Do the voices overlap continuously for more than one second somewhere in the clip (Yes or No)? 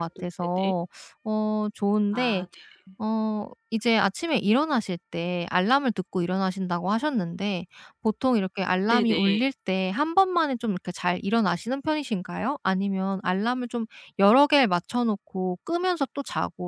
No